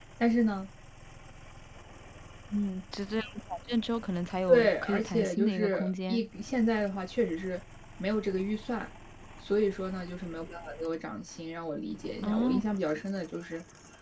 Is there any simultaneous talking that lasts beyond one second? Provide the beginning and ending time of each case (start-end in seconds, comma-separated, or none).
4.5-6.2